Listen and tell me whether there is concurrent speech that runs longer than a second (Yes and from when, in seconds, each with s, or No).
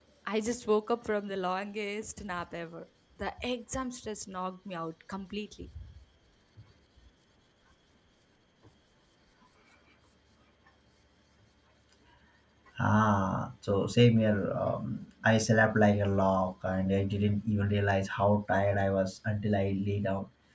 No